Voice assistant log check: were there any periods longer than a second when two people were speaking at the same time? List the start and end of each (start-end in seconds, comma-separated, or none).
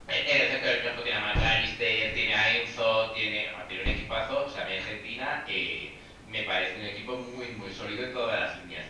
none